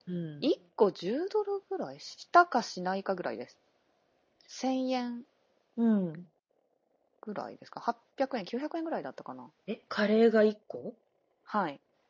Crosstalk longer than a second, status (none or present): none